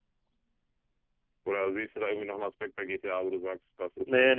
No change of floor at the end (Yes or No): No